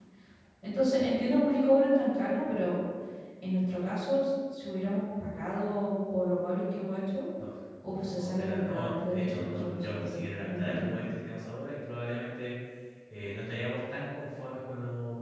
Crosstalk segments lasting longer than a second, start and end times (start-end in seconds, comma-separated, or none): 8.2-10.9